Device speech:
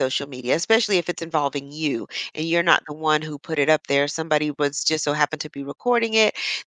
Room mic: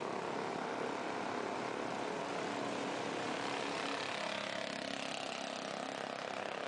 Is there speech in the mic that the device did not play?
No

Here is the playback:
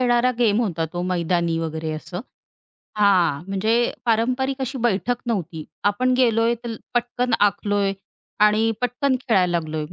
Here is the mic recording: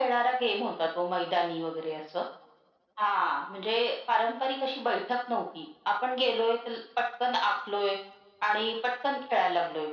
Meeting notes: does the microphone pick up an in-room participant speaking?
No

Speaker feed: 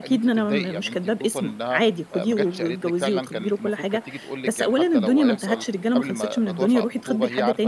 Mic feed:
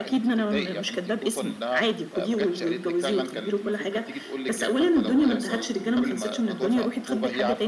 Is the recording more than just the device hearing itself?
No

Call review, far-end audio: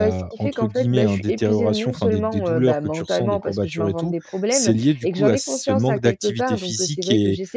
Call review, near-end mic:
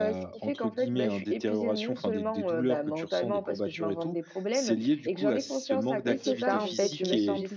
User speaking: Yes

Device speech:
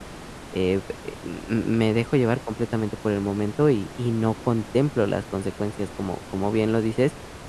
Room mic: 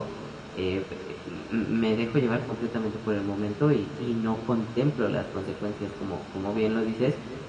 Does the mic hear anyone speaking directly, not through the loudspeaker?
No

